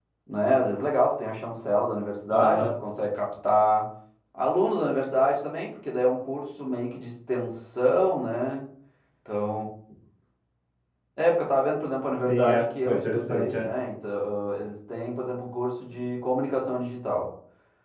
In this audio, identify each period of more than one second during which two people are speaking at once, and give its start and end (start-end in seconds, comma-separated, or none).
12.3-13.7